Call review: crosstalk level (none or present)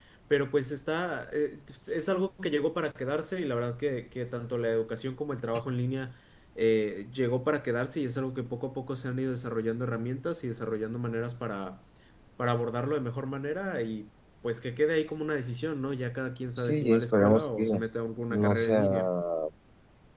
present